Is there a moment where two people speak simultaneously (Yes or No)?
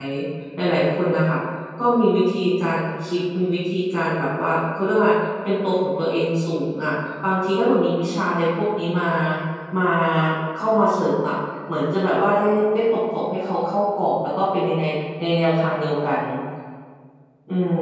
No